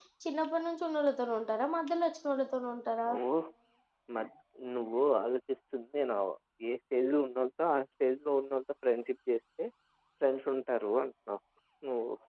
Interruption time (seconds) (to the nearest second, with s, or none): none